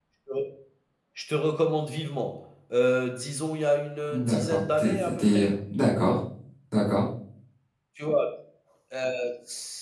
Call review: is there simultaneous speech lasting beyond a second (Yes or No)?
Yes